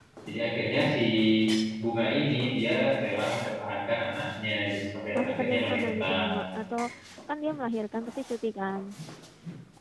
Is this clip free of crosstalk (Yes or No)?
No